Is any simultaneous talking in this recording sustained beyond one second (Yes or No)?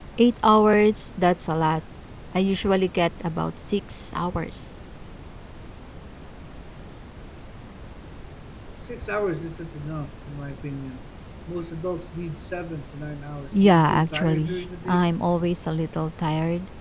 Yes